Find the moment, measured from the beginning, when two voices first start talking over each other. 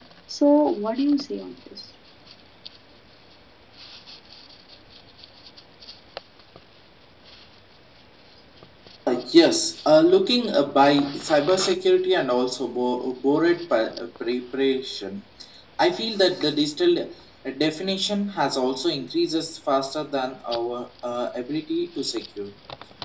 none

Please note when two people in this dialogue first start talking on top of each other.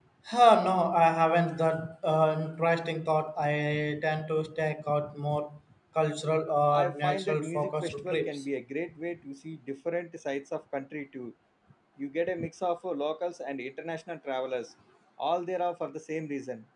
6.7 s

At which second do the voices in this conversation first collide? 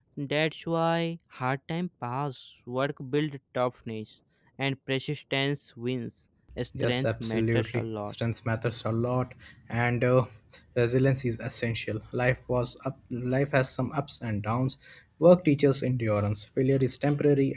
6.8 s

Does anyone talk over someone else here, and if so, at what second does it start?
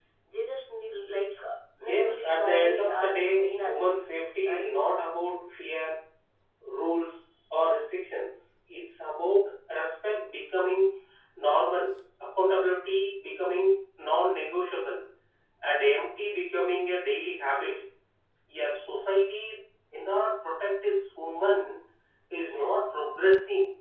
1.8 s

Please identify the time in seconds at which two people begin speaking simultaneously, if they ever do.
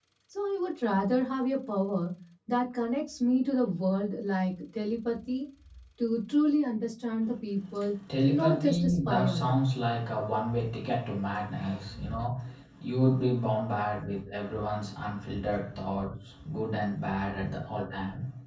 8.3 s

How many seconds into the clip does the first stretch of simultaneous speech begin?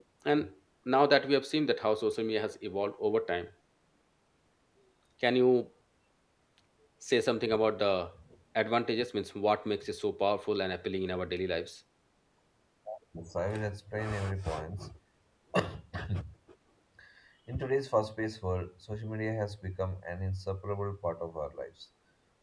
none

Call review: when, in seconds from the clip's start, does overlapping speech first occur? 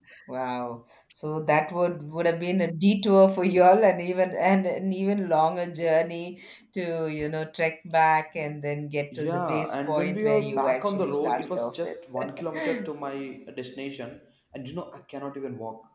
9.1 s

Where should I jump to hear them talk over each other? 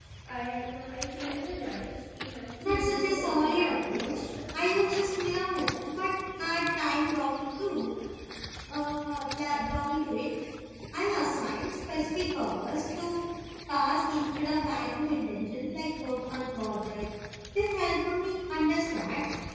2.6 s

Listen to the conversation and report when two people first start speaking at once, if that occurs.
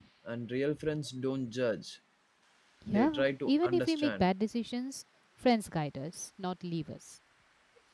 2.9 s

